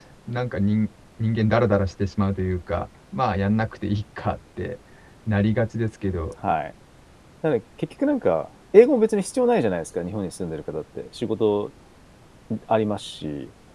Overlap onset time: none

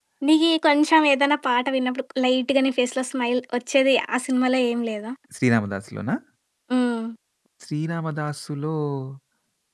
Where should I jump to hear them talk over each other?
none

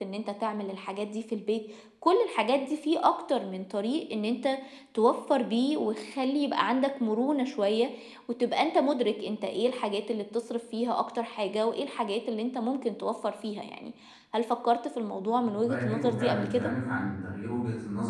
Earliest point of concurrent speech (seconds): 15 s

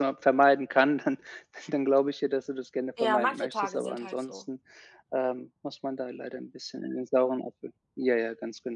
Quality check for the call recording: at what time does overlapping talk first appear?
3 s

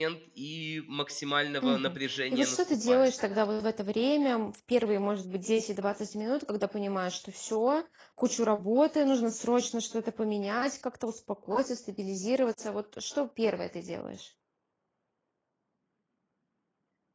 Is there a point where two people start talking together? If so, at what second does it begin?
2 s

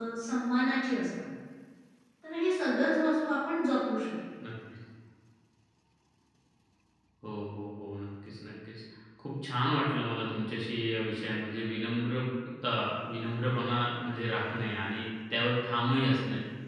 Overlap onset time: none

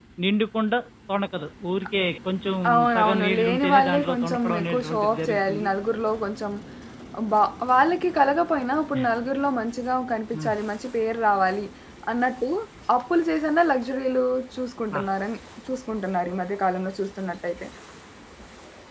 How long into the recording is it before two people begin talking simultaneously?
3 s

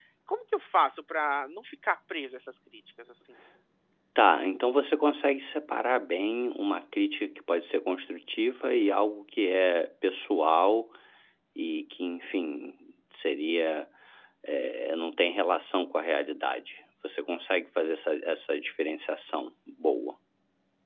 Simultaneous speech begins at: none

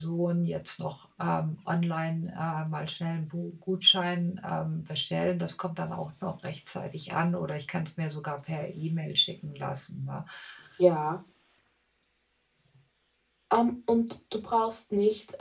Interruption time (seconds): none

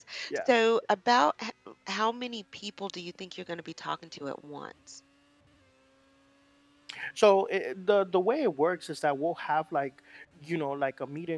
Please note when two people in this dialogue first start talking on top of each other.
none

